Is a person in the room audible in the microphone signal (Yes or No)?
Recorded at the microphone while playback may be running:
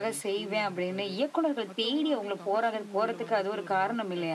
Yes